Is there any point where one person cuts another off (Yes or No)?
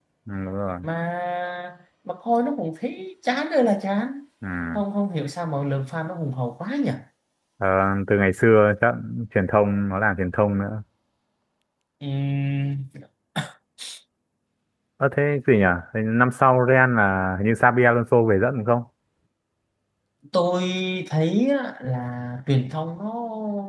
No